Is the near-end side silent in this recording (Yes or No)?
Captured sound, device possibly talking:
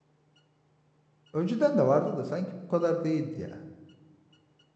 No